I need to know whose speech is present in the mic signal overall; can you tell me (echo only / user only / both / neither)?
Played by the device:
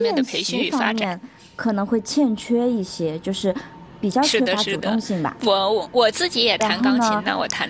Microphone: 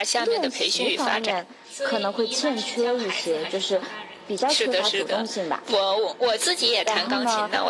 both